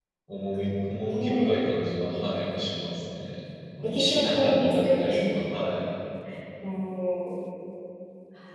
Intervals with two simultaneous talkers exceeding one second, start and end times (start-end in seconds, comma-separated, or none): 3.8-5.3